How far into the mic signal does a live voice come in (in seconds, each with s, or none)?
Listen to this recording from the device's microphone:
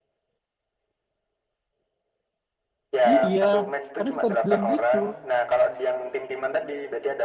3.1 s